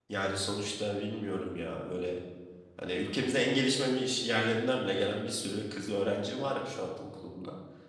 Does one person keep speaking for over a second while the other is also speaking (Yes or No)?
No